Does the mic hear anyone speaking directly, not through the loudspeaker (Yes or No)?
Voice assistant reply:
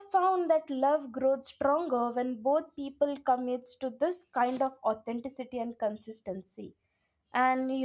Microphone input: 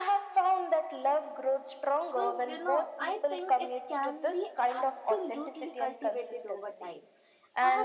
Yes